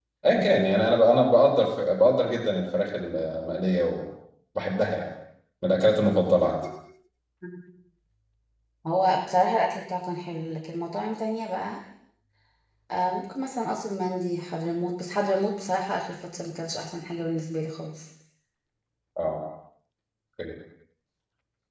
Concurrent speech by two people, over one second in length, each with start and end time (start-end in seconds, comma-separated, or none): none